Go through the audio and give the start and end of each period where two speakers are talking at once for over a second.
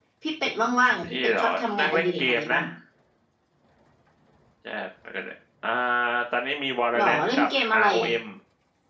1.0-2.6

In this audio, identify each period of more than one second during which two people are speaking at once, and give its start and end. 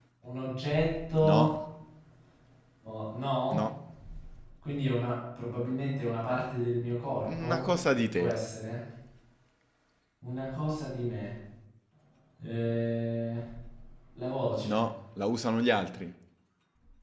none

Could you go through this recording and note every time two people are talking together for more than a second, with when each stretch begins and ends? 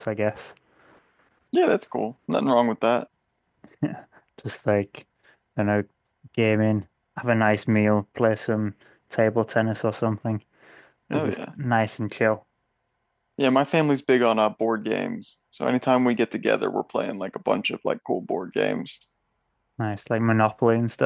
none

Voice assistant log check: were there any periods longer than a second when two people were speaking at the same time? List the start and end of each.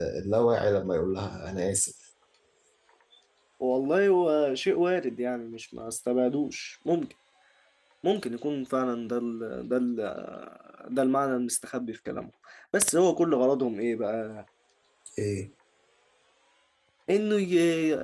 none

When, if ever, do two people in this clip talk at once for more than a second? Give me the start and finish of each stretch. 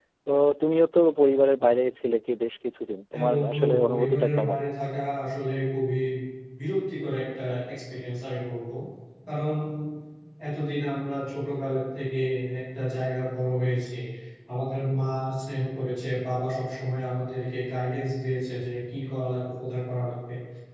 3.1-4.6

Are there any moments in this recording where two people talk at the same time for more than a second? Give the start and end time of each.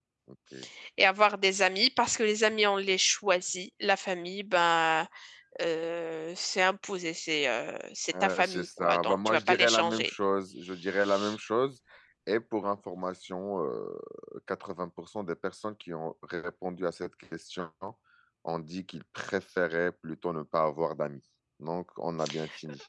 8.2-10.1

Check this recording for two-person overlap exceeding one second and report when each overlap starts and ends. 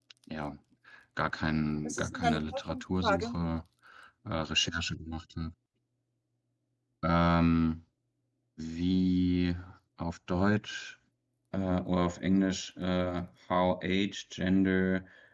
1.9-3.3

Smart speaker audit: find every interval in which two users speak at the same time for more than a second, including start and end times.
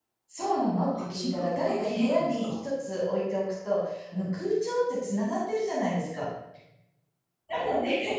1.0-2.5

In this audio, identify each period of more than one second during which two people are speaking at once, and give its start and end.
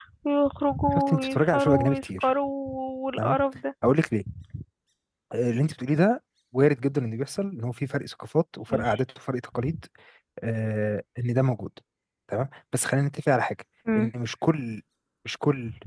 0.9-2.3

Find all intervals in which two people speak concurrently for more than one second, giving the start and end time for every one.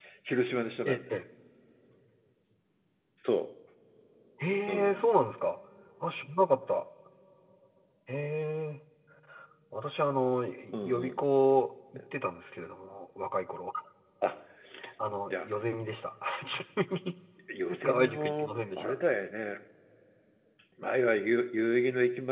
17.7-18.9

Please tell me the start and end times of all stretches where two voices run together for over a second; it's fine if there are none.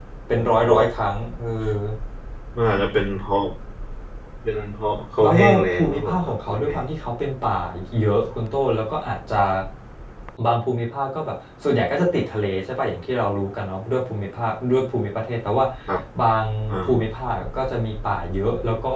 5.2-6.7

